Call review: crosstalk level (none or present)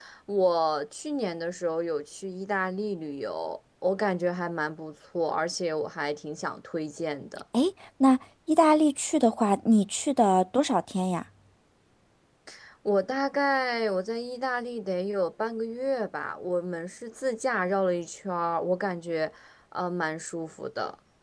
none